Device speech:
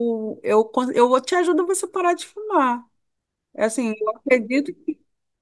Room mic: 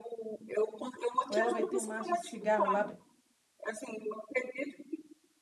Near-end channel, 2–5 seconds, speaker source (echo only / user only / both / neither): both